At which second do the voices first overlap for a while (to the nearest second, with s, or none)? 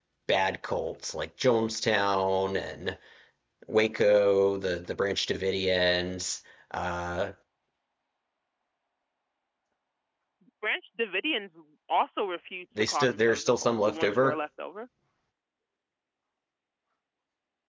13 s